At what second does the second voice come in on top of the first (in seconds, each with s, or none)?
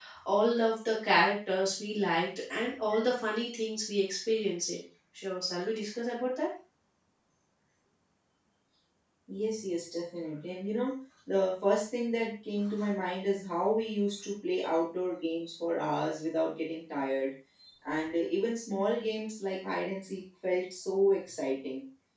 none